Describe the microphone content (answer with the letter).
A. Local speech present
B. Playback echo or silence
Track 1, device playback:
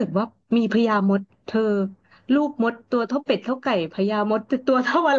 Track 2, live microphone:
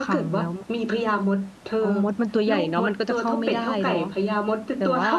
A